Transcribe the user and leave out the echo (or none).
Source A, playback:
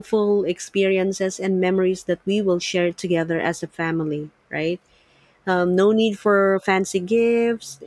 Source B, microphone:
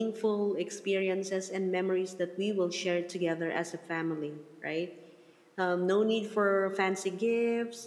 none